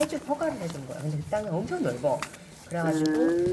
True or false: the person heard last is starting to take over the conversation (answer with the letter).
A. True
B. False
B